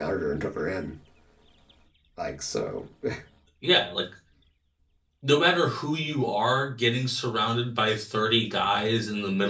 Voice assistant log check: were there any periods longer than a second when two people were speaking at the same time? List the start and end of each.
none

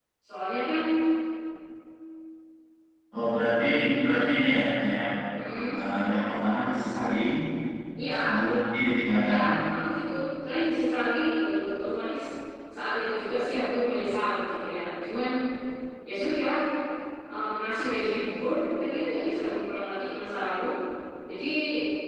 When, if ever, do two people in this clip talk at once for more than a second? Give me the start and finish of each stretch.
none

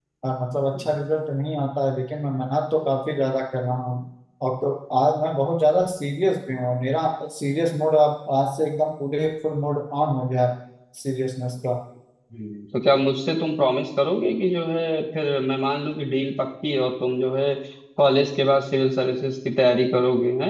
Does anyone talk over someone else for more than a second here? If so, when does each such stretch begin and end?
none

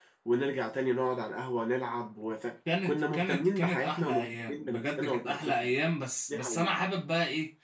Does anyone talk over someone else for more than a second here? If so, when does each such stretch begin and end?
2.8-5.7

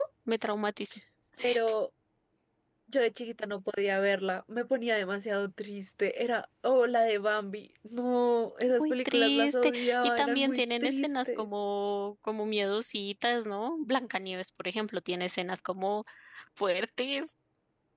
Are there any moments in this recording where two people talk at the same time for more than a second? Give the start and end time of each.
8.8-11.5

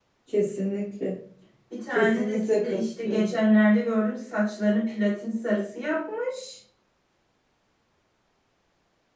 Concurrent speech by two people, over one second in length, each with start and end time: 2.0-3.4

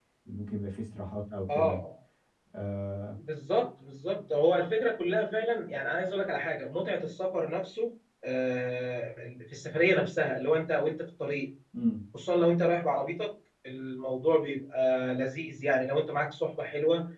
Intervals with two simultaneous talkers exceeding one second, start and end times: none

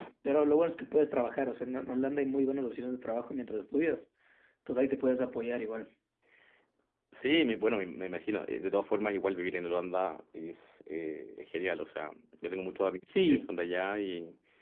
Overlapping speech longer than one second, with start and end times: none

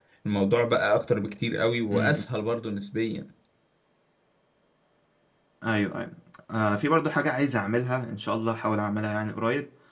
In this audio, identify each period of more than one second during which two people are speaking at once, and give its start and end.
none

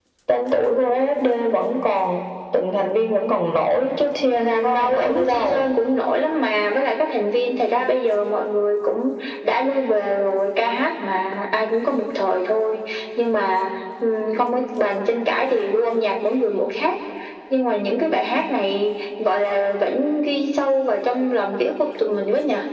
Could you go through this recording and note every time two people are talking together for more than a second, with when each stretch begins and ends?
4.4-5.7

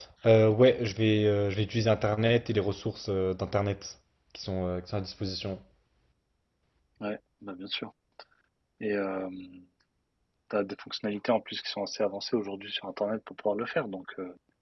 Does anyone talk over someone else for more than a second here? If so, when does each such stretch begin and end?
none

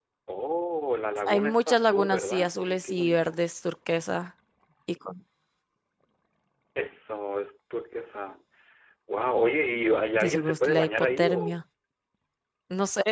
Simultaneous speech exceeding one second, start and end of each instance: 1.3-3.4, 10.2-11.6

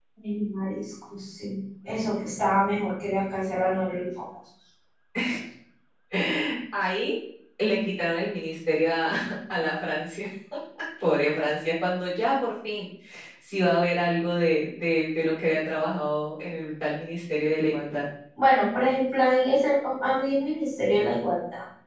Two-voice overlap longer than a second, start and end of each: none

